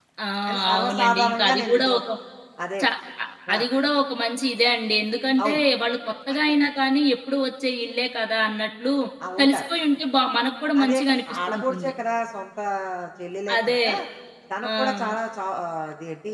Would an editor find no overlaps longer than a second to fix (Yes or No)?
No